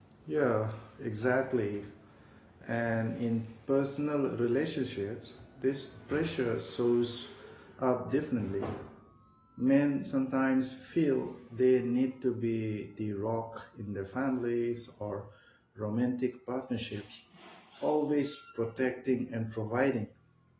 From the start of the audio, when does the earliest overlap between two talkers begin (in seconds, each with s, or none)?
none